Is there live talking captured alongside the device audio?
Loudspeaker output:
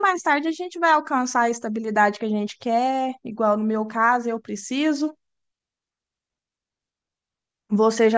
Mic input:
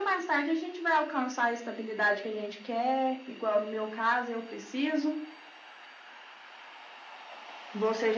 No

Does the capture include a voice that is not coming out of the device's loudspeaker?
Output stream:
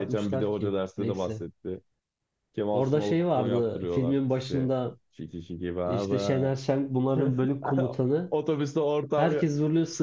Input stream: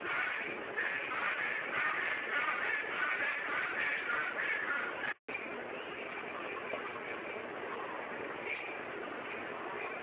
No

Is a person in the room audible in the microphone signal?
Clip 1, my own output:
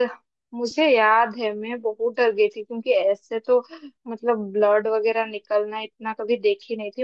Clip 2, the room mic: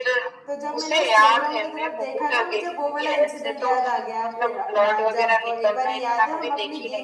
Yes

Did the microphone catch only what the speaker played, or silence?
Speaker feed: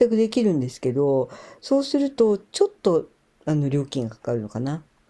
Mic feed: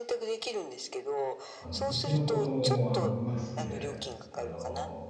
No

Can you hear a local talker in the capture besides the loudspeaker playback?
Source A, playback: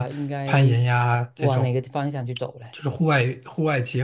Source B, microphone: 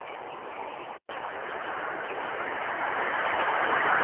No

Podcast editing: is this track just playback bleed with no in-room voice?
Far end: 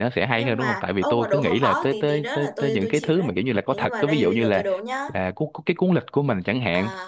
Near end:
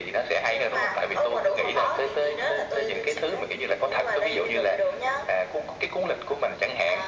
Yes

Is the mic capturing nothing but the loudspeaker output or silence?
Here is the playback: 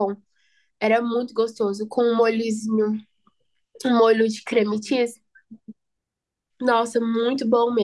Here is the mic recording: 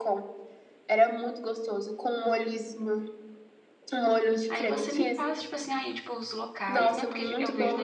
No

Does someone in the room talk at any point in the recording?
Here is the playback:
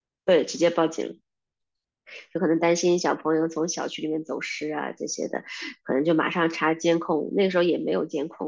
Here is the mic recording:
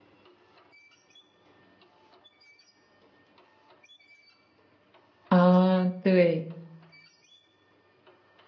Yes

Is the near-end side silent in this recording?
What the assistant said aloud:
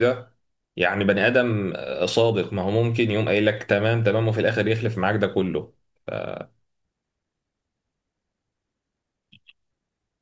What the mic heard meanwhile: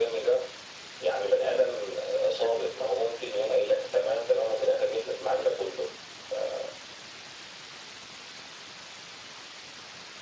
Yes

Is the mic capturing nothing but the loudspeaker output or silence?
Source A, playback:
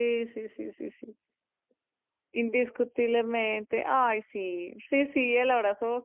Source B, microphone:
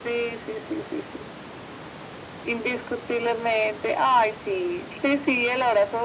Yes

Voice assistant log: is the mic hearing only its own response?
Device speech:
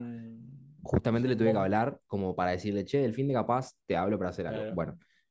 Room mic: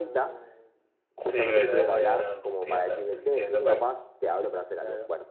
No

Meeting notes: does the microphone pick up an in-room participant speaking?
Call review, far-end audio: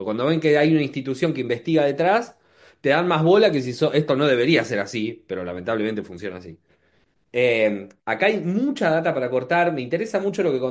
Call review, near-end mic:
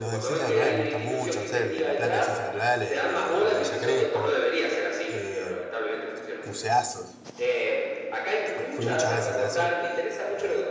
Yes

